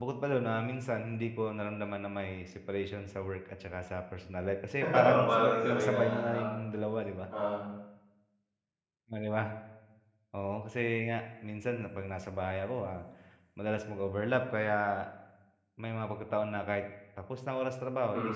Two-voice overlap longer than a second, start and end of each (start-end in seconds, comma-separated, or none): 4.9-6.4